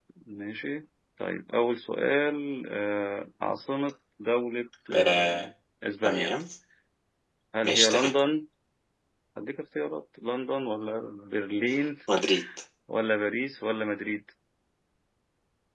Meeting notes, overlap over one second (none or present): none